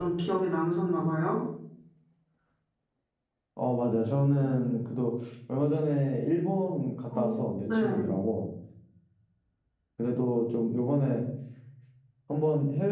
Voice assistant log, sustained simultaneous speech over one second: none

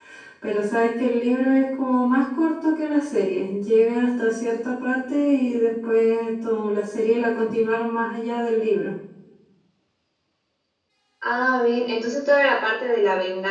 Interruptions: none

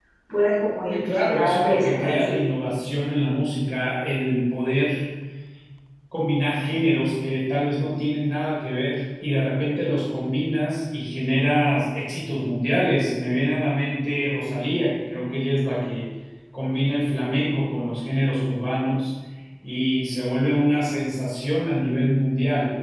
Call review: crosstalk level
present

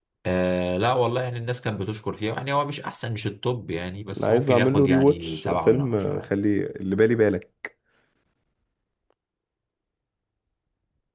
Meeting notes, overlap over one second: present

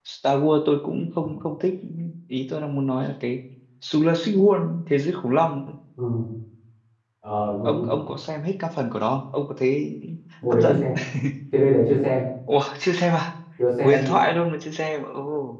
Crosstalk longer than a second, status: none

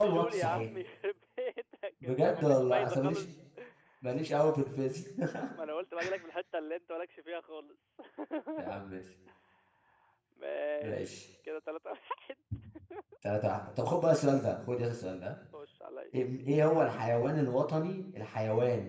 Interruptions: present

